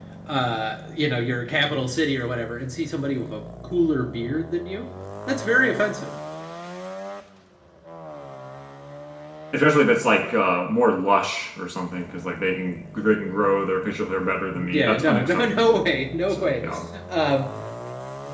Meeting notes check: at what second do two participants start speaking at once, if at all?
14.6 s

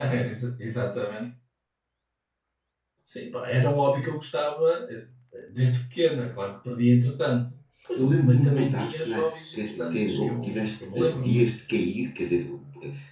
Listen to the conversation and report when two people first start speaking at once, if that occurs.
8.0 s

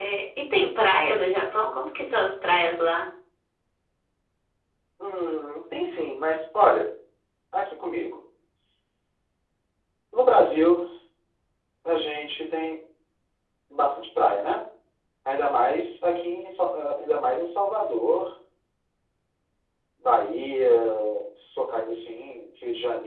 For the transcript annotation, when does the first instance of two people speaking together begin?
none

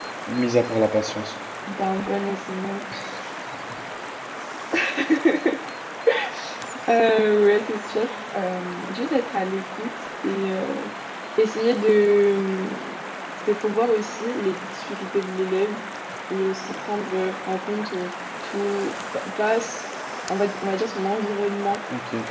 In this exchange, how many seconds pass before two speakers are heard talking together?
none

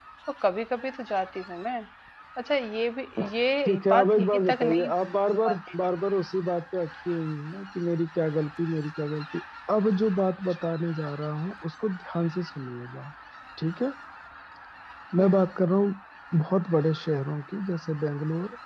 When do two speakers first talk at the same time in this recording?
3.7 s

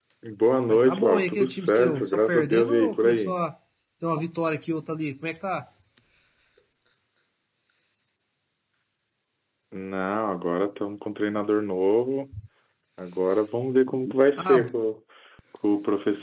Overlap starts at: 0.7 s

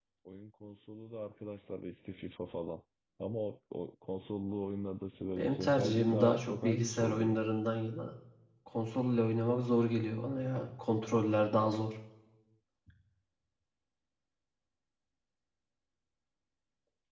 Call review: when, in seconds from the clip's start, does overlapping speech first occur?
5.4 s

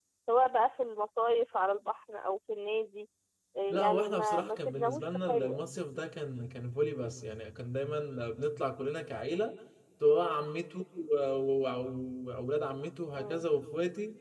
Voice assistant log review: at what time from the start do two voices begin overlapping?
3.7 s

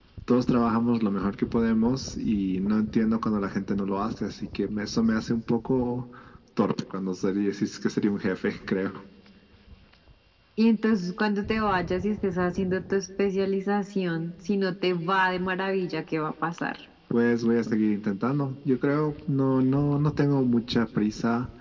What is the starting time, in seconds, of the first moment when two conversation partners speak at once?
none

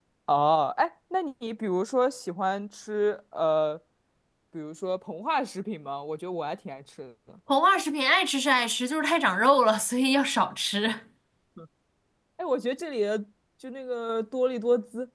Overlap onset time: none

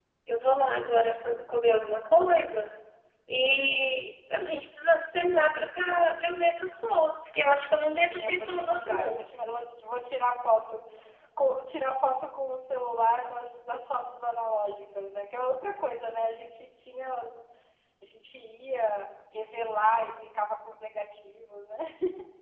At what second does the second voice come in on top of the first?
7.9 s

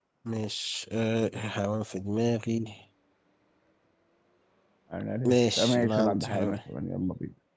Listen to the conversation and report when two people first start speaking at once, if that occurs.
5.2 s

